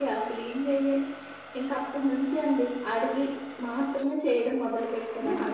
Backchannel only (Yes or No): No